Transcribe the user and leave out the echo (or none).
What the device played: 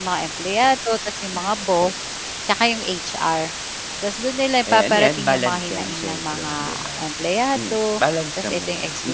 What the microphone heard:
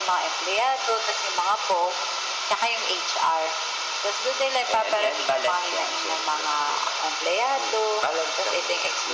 none